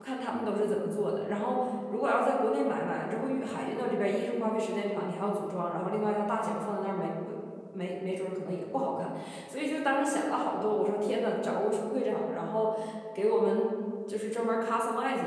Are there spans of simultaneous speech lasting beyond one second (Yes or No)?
No